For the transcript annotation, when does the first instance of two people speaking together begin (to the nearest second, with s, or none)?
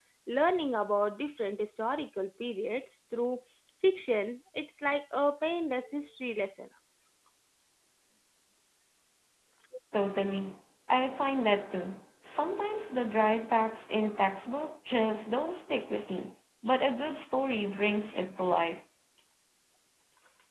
none